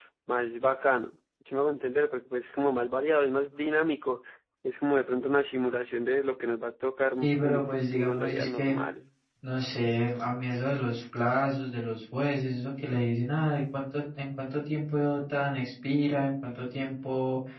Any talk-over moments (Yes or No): Yes